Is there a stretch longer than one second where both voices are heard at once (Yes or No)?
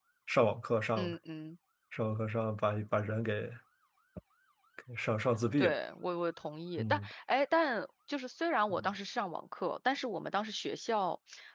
No